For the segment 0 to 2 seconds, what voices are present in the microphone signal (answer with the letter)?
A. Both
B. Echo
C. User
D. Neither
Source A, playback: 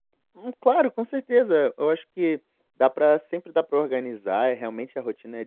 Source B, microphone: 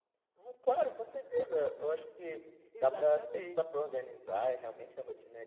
B